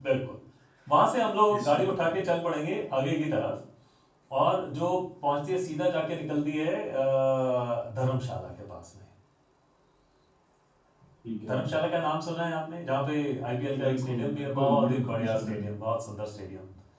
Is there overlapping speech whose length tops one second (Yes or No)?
Yes